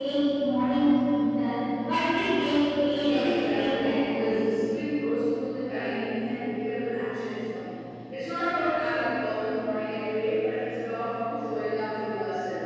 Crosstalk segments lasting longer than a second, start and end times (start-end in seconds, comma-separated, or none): 3.0-4.4